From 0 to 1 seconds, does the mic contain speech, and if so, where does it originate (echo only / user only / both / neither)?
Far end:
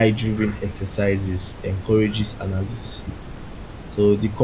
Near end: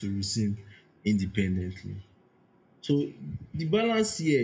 user only